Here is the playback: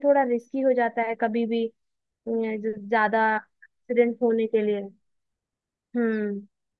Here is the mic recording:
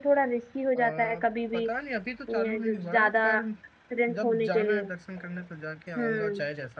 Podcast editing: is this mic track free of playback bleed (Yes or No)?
No